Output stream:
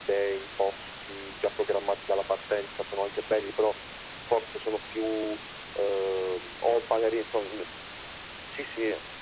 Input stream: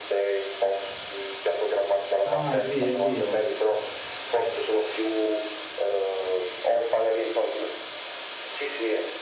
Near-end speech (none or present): present